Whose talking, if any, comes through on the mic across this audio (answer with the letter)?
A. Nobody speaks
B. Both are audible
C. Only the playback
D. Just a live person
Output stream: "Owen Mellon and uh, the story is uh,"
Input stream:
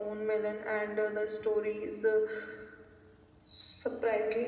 C